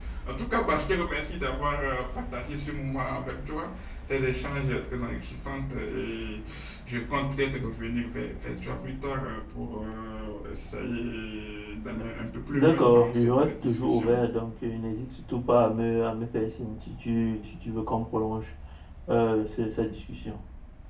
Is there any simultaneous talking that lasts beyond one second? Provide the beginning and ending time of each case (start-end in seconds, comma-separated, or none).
12.5-14.2